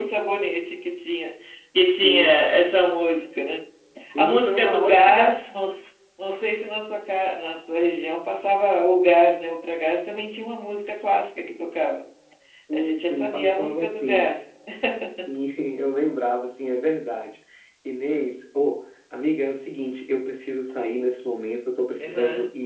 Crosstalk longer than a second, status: present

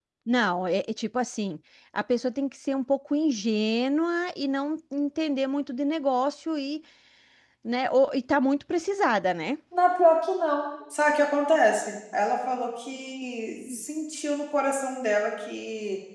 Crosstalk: none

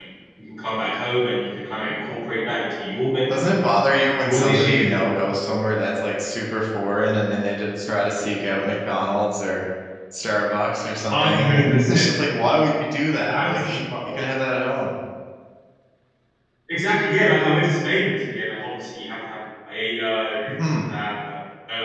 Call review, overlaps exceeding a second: present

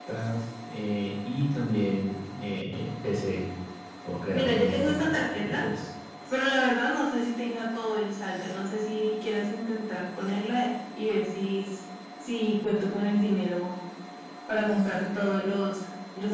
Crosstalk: present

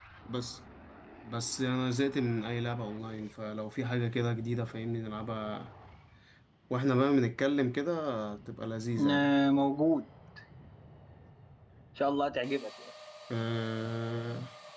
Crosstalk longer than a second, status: none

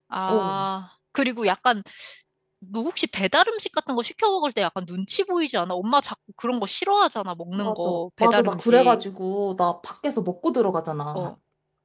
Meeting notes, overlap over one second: present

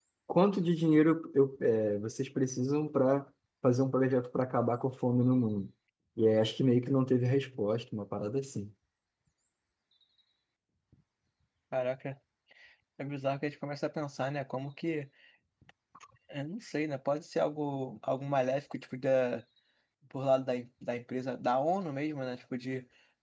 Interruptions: none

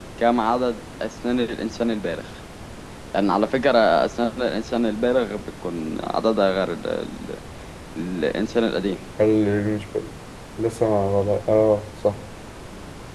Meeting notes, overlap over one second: none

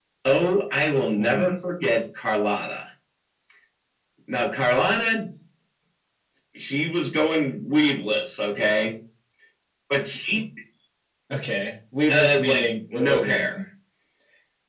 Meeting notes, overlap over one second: present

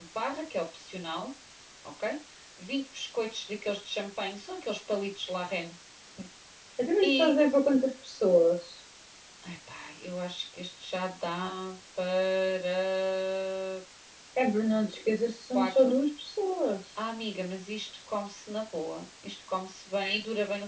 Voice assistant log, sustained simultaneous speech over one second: none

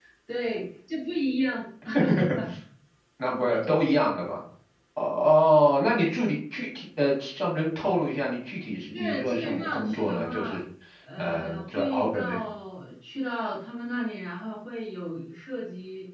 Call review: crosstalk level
present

